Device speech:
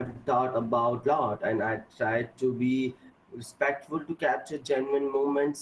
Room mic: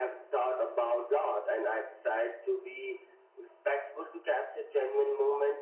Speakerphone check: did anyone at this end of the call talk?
No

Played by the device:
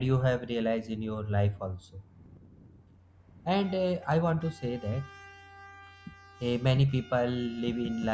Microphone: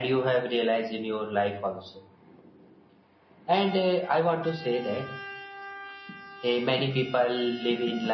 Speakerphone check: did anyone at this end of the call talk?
No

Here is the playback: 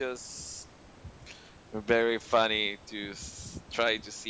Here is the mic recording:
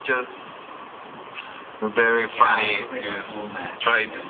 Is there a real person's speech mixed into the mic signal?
Yes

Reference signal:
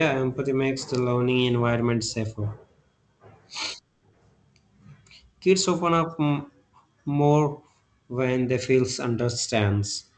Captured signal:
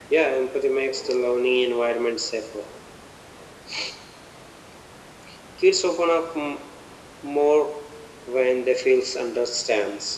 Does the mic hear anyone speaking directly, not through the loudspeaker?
No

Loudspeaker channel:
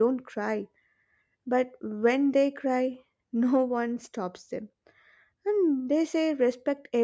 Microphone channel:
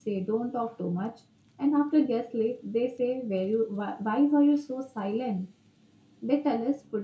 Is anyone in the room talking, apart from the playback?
Yes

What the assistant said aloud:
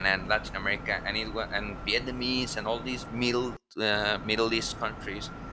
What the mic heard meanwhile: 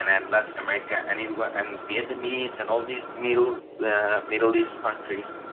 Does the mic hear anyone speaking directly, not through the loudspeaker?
No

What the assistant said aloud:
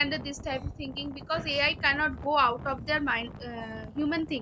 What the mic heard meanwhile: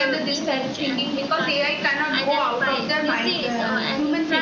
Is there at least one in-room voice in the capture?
Yes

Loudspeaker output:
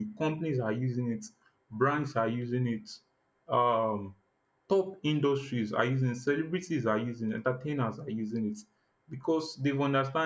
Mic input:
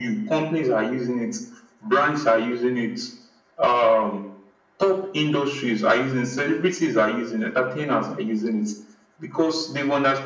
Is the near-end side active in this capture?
No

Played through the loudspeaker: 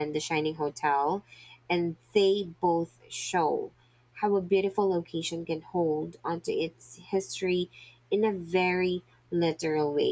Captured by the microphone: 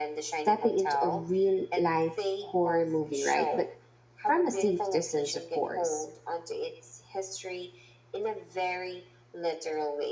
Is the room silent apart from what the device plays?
No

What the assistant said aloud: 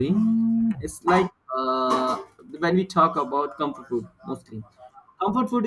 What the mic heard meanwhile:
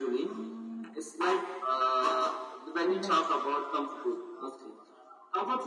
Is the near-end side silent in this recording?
No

